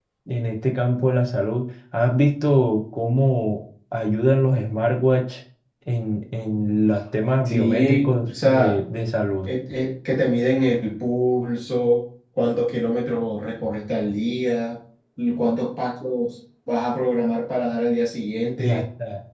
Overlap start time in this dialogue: 7.5 s

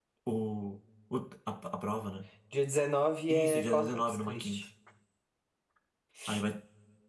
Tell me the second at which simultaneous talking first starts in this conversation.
3.3 s

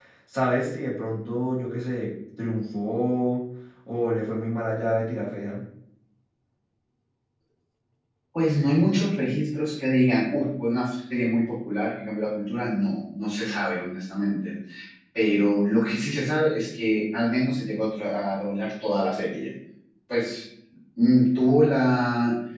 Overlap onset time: none

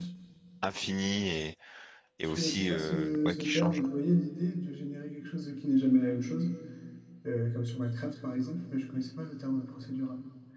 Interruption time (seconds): 2.4 s

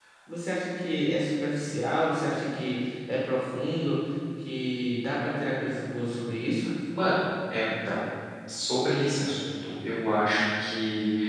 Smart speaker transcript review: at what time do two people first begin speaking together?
none

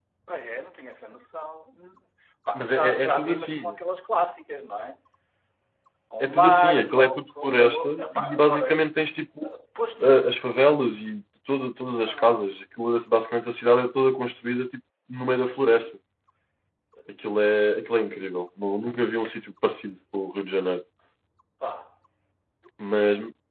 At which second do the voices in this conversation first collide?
2.6 s

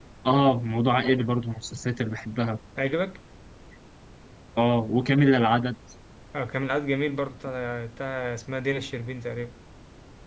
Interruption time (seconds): none

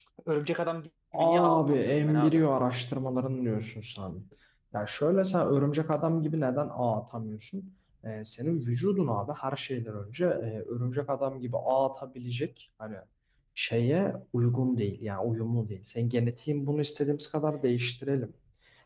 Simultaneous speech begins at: 1.1 s

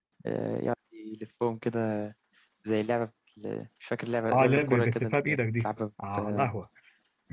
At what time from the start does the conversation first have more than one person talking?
4.3 s

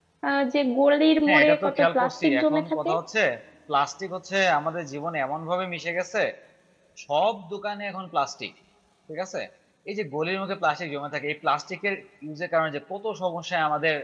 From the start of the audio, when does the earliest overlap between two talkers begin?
1.3 s

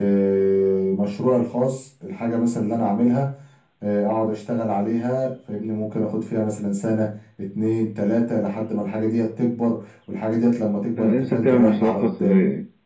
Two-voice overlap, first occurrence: 11.0 s

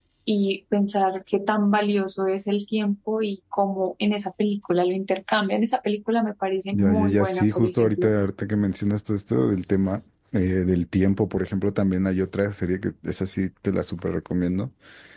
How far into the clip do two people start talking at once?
6.7 s

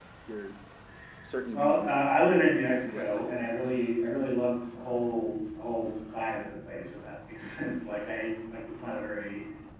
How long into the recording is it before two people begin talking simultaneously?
1.5 s

